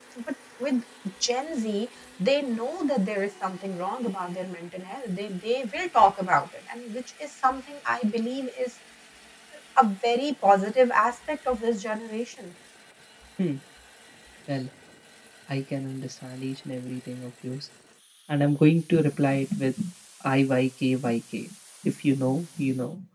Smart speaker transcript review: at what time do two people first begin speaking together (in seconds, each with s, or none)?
none